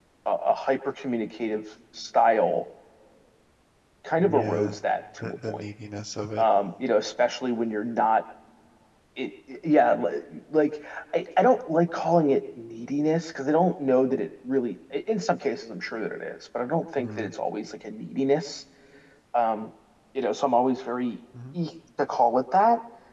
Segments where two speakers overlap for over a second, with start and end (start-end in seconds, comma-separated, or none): none